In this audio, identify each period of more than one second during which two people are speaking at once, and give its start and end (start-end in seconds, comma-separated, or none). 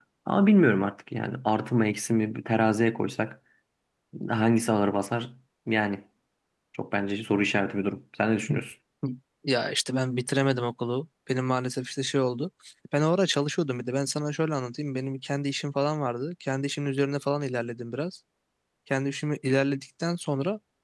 none